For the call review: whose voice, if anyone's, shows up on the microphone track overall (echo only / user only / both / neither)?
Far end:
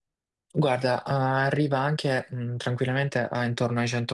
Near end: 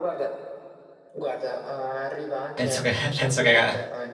both